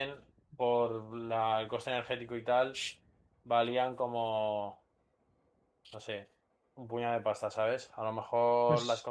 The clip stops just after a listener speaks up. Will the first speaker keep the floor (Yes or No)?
Yes